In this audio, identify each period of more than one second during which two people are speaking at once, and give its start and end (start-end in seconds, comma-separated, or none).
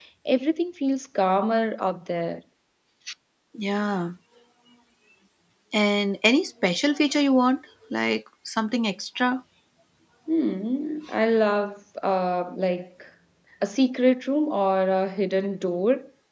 none